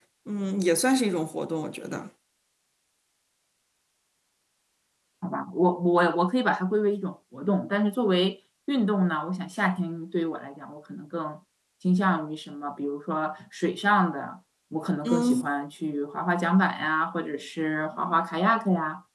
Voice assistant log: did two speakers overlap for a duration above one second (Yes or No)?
No